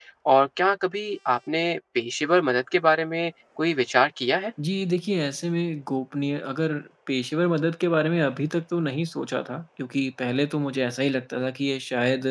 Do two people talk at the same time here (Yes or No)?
No